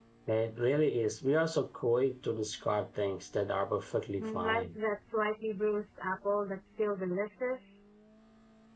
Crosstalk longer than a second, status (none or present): none